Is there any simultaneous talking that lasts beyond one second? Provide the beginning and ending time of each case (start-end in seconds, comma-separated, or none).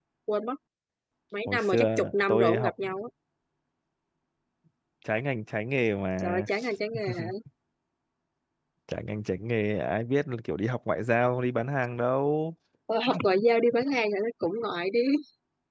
1.5-2.7